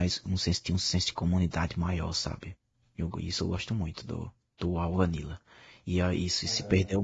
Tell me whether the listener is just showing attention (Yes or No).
Yes